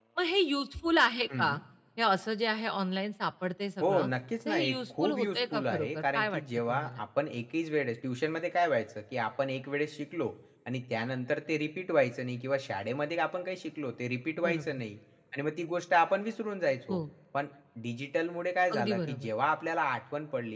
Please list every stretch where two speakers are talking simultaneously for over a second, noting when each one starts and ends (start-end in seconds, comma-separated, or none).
4.5-7.0